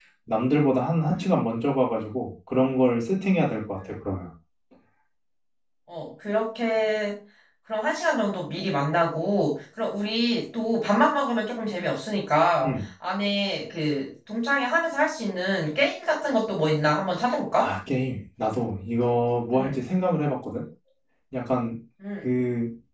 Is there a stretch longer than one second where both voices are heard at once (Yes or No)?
No